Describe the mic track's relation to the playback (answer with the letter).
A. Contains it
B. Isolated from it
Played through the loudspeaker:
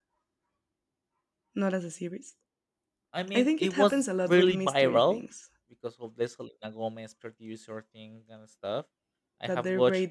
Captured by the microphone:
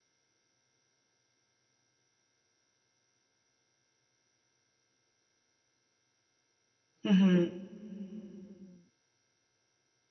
B